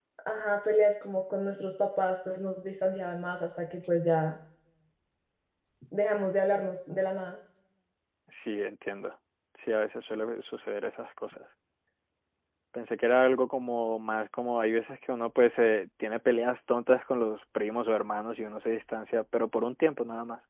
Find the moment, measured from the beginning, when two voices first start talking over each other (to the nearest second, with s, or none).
none